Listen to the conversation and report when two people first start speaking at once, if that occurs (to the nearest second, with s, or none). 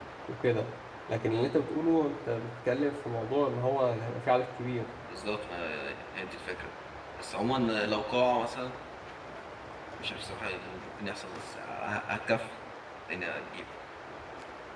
none